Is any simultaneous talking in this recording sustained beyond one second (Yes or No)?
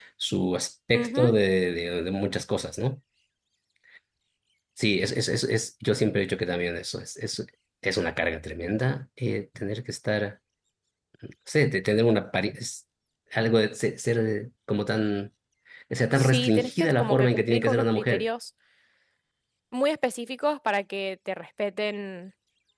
Yes